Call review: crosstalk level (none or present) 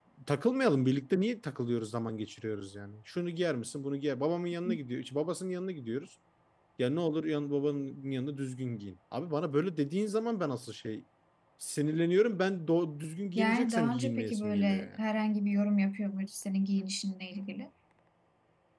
present